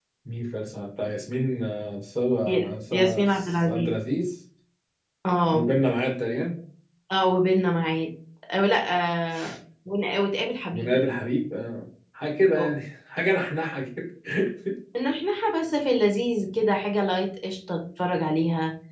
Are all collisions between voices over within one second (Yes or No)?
No